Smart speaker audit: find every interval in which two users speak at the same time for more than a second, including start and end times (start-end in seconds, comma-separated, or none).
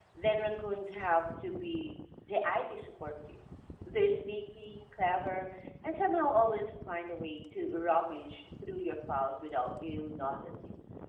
none